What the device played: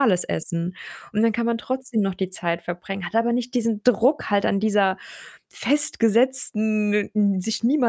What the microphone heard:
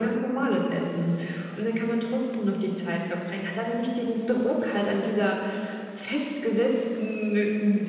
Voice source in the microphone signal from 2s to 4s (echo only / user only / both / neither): echo only